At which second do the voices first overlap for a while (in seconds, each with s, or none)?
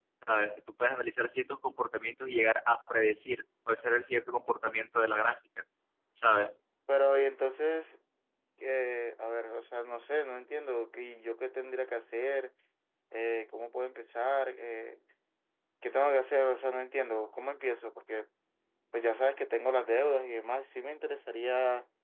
none